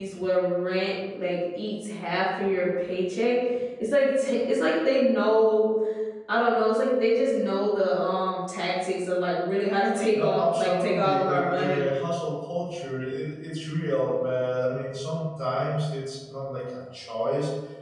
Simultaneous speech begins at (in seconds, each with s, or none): 10.1 s